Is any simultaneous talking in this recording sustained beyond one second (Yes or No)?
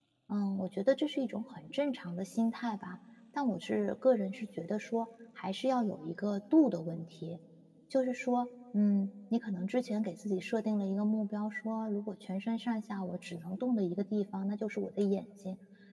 No